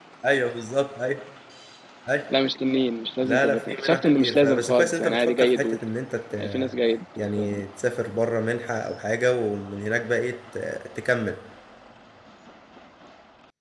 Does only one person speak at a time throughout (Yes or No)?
No